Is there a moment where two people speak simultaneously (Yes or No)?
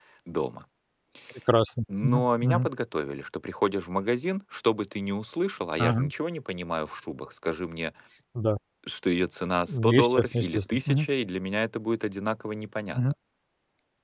Yes